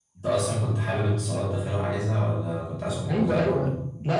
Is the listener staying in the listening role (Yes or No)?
No